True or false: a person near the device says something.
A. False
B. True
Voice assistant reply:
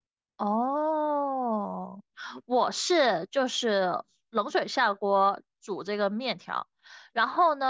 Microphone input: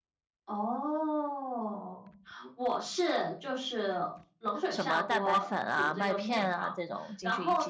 B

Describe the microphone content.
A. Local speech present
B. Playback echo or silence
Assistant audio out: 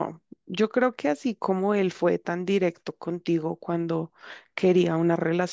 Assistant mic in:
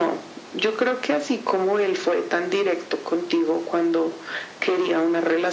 B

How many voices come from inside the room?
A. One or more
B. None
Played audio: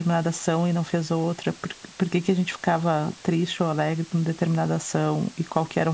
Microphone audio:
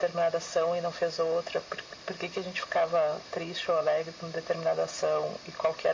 B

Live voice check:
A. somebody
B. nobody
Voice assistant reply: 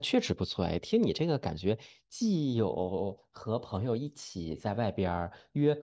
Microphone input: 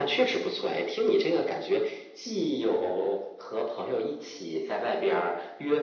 B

